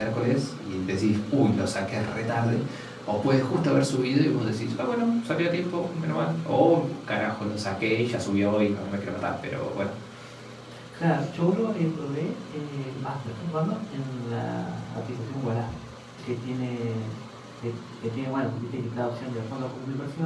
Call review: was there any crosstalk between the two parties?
No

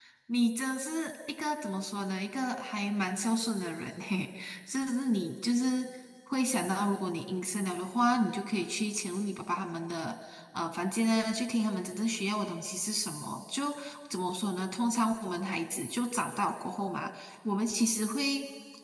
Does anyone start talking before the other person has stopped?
No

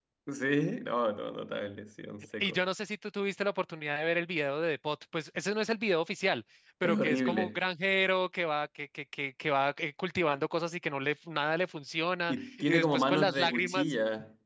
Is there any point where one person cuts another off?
Yes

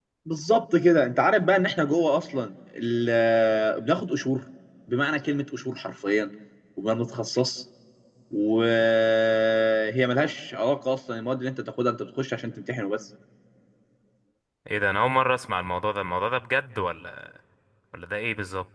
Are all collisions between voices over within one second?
Yes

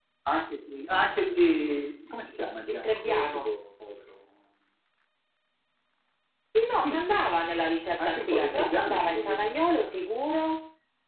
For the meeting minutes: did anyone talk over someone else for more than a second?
Yes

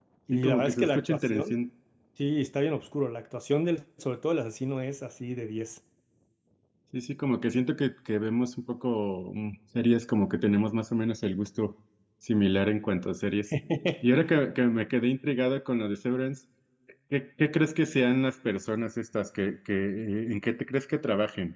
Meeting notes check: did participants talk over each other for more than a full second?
Yes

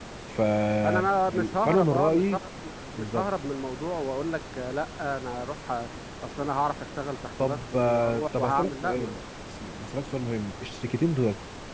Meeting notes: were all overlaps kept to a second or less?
No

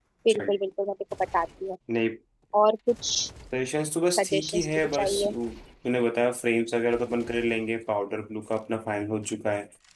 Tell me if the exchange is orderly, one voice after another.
No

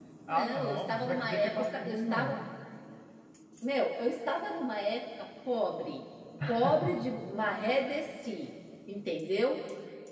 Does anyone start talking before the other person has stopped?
Yes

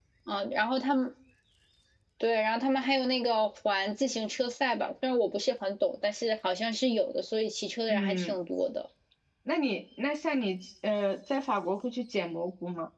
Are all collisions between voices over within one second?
Yes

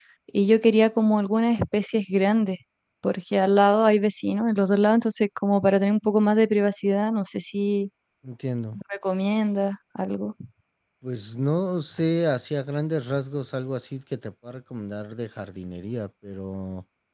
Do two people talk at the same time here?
No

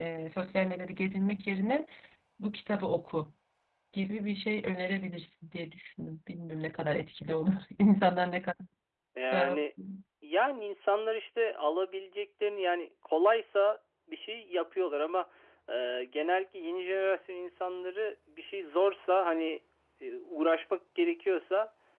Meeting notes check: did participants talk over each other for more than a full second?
No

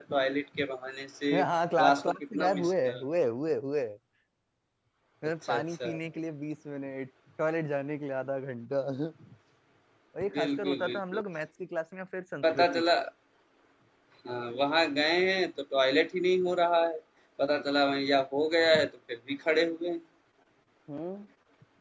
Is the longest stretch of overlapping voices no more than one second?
No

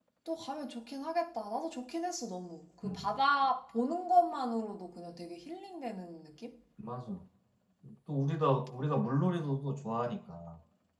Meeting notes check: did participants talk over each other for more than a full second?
No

